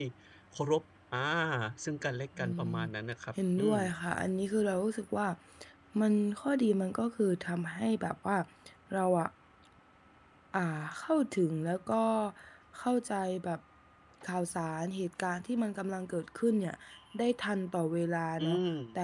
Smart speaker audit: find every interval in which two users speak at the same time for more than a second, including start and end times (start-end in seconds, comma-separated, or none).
none